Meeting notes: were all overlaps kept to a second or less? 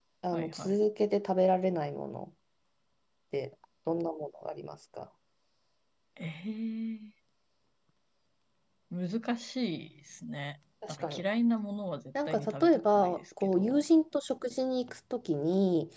No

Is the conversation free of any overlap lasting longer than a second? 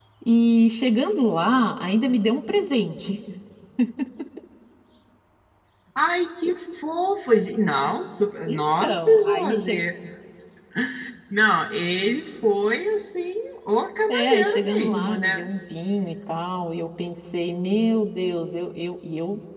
No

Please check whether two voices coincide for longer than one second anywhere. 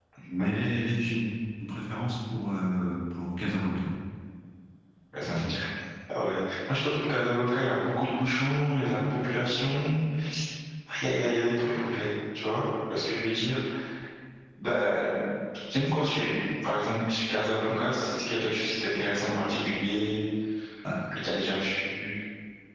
No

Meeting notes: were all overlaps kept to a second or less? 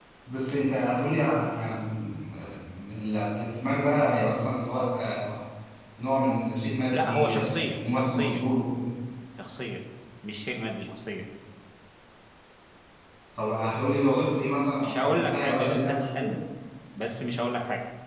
No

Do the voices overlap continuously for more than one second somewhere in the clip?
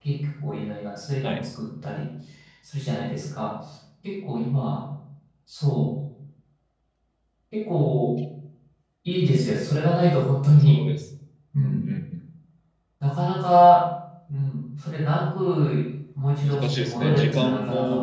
Yes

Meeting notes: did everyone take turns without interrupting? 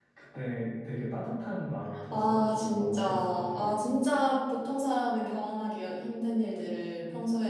No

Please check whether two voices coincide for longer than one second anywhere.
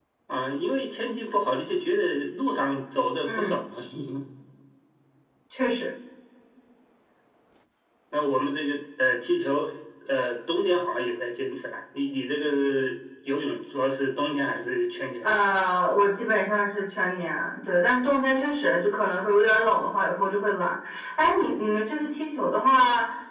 No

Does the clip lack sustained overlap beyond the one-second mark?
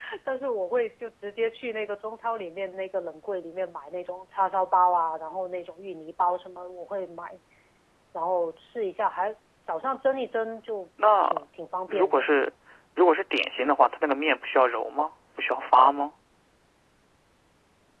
Yes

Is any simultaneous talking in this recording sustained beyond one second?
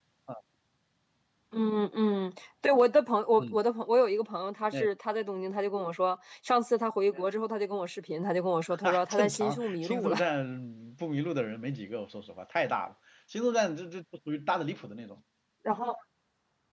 Yes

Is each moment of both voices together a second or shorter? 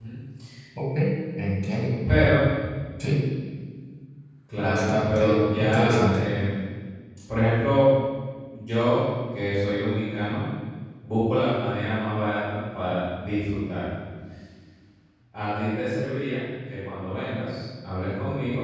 No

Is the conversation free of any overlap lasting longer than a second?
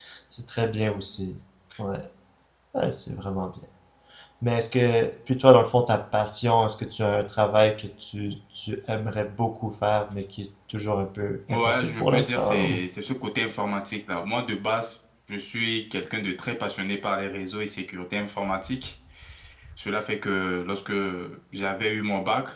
No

